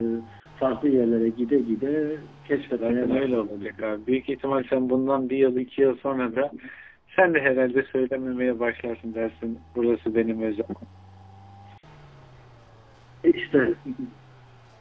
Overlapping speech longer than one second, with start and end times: 2.5-3.9

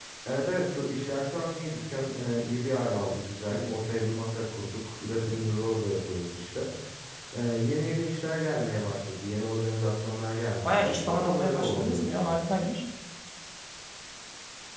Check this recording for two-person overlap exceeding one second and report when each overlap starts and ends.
10.7-12.3

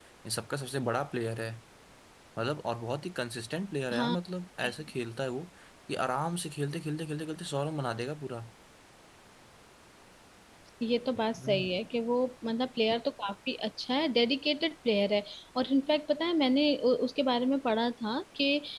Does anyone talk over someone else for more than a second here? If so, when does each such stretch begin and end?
none

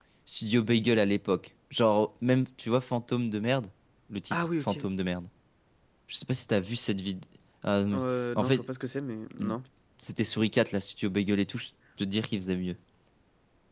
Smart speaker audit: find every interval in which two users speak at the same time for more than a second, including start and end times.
none

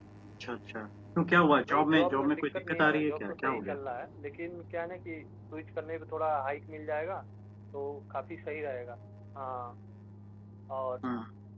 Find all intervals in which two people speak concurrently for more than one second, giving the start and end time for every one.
1.7-3.8

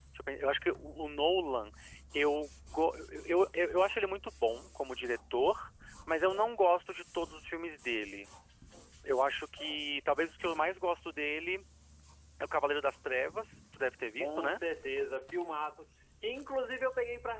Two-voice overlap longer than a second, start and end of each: none

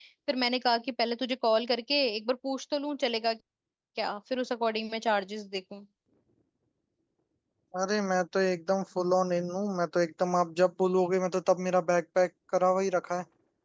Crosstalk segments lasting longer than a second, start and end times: none

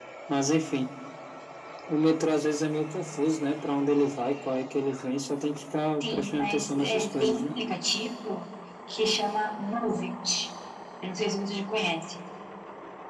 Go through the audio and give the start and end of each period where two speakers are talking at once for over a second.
6.0-7.5

